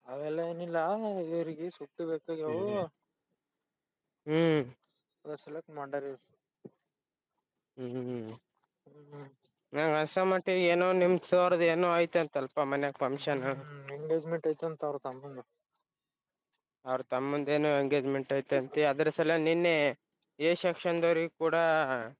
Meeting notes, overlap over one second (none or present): none